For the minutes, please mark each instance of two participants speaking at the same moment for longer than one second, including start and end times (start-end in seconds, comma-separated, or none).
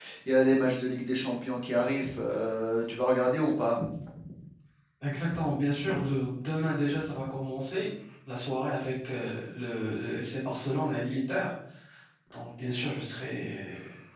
none